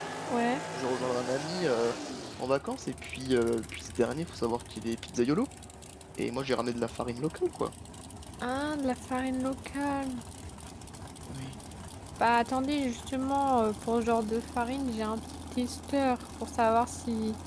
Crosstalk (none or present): none